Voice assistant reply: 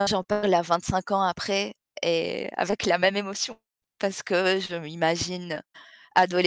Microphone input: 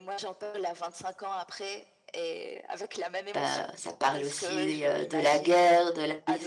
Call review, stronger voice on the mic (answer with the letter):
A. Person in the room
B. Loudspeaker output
A